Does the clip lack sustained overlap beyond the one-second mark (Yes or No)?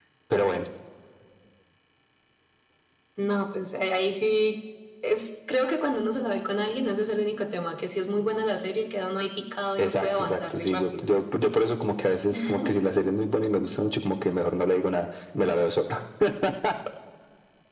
No